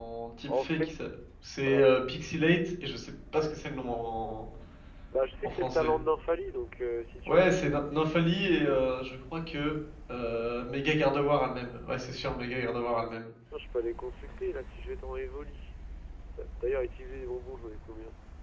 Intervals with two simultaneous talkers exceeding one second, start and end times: none

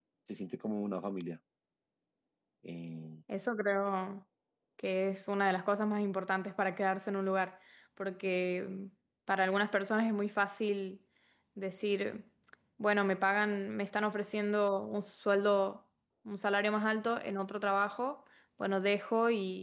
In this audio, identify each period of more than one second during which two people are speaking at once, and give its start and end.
none

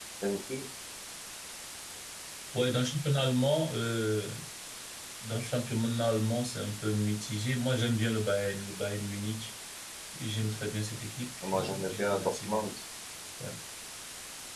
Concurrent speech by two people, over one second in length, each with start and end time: 11.5-12.7

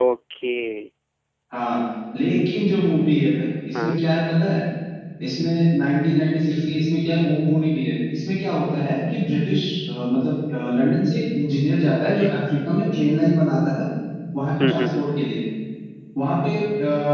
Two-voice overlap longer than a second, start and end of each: none

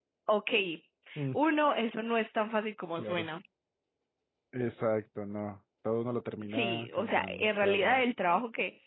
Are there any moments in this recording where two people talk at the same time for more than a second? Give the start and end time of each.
6.5-8.0

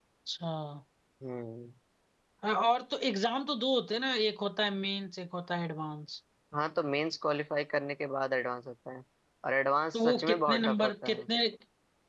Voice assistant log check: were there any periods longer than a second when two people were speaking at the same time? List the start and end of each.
9.9-11.2

